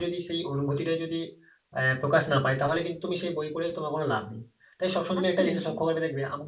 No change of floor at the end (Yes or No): Yes